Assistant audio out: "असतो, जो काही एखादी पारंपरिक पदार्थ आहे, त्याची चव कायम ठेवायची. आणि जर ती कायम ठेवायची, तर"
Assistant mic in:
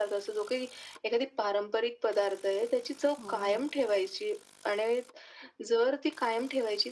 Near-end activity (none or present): present